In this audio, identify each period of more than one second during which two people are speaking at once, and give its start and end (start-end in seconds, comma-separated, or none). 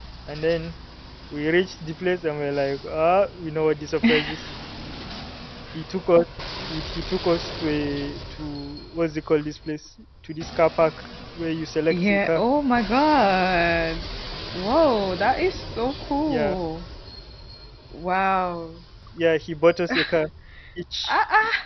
none